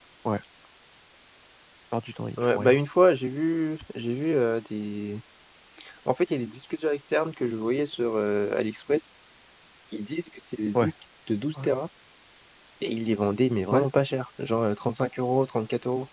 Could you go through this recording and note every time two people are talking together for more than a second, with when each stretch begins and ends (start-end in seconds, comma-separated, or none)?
none